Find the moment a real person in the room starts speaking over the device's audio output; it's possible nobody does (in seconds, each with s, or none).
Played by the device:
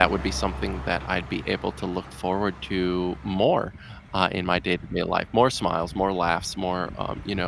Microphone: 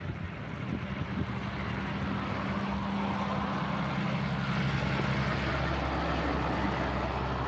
none